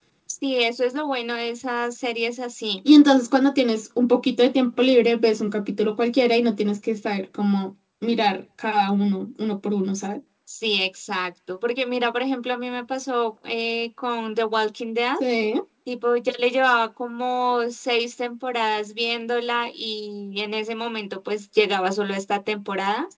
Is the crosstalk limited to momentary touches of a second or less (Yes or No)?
Yes